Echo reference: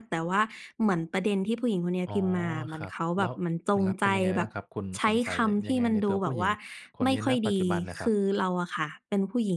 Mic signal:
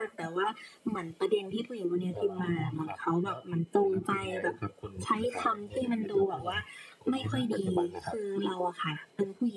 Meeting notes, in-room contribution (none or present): none